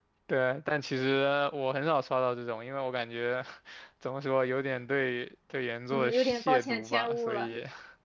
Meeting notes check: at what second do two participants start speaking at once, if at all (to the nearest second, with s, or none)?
6 s